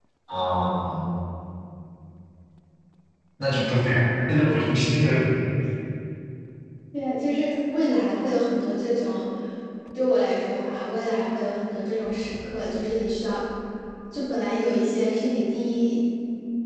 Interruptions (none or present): none